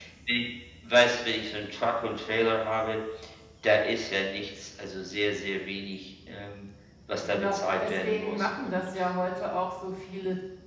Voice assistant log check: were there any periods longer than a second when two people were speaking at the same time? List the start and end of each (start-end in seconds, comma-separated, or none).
7.2-8.8